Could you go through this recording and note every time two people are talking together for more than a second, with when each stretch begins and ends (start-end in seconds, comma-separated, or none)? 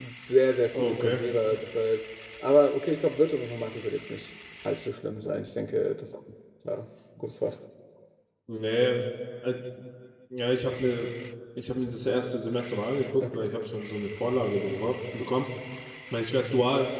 none